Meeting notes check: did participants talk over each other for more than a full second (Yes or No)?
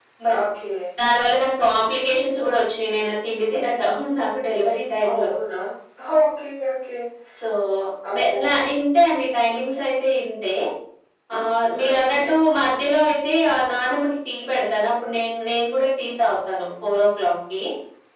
No